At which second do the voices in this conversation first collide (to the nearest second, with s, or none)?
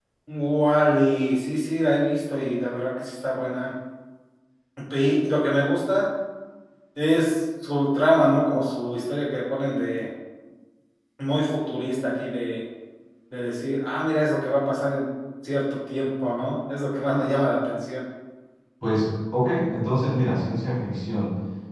none